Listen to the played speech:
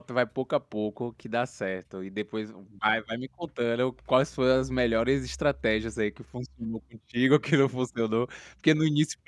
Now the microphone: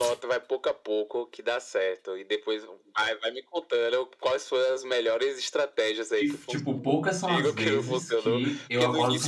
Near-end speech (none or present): present